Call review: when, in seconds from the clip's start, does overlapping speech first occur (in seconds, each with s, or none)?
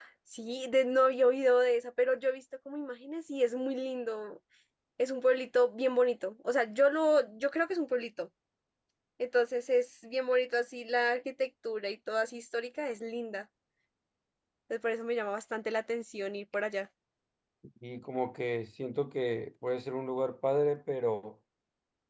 none